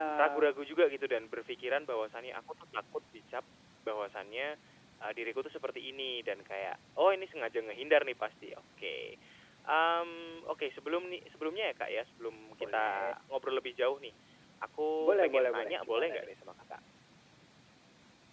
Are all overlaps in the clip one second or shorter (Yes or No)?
No